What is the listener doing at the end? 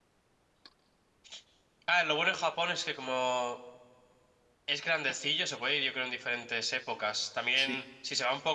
listening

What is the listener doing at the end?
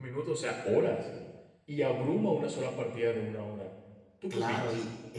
taking over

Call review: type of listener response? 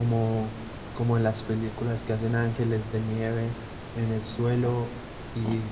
listening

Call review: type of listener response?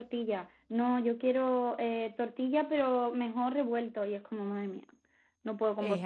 taking over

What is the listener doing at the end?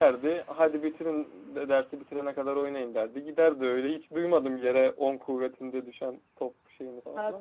taking over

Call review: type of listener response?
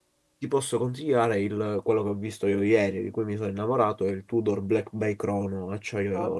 taking over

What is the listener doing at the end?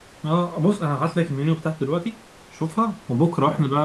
listening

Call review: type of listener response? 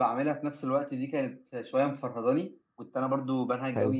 listening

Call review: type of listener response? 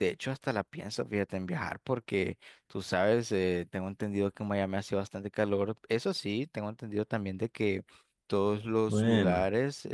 listening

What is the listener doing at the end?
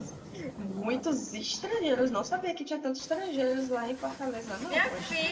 taking over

